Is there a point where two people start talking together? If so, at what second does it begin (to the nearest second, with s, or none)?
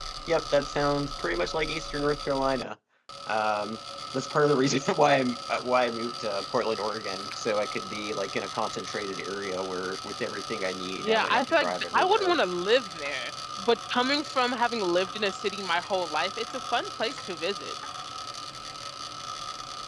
11 s